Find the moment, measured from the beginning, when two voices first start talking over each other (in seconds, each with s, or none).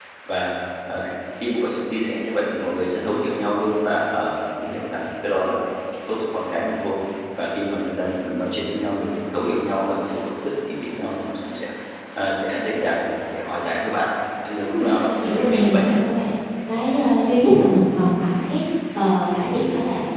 14.6 s